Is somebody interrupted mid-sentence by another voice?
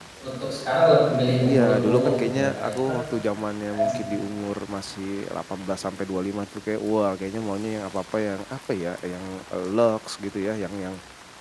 Yes, from 1.4 s

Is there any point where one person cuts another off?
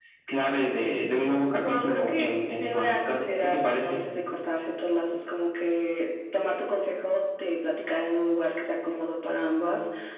Yes, from 1.6 s

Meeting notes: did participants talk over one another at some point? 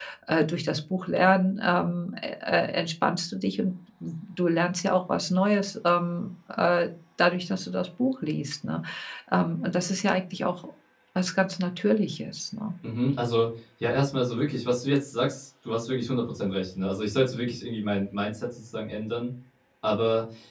No

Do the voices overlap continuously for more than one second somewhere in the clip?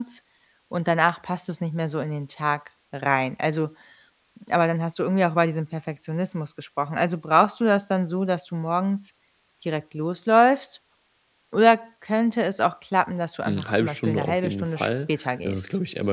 Yes, from 13.4 s

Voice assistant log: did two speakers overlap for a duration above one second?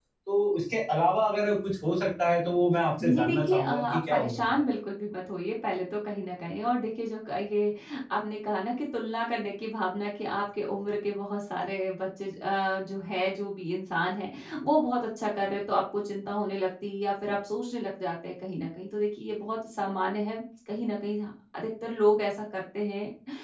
Yes, from 3.0 s

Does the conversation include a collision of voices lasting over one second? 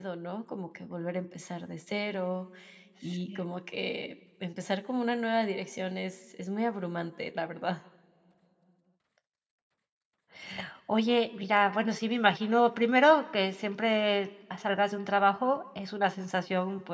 No

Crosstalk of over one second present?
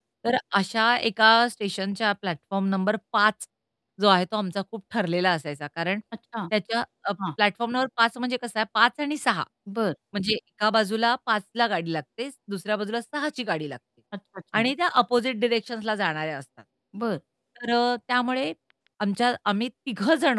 No

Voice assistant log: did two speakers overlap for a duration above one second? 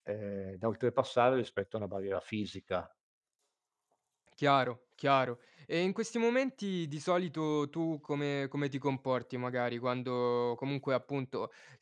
No

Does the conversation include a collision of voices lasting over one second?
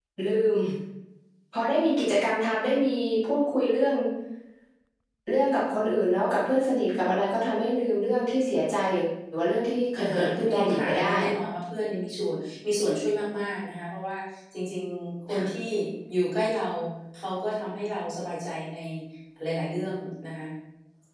Yes, from 9.9 s

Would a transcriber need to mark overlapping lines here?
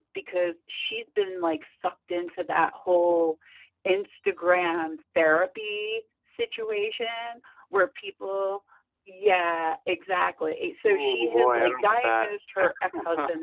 Yes, from 10.9 s

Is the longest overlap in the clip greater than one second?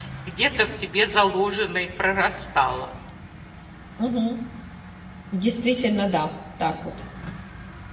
No

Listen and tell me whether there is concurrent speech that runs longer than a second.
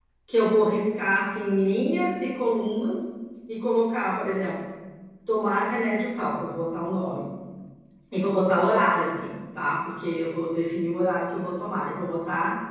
No

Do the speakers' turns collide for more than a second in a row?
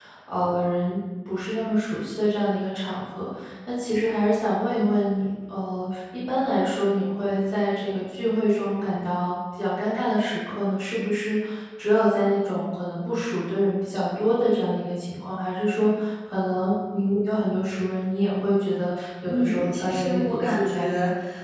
Yes, from 19.3 s

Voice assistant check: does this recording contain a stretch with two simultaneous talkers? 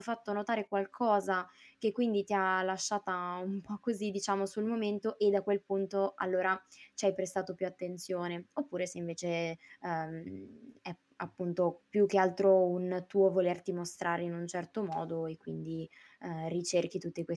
No

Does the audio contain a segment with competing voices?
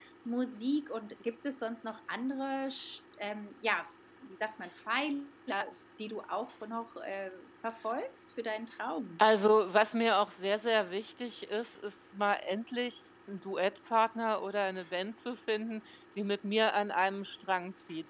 No

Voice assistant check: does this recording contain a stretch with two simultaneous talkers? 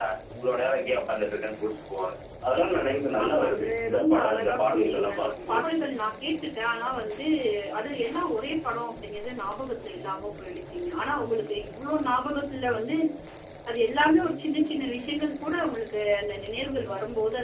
Yes, from 3.1 s

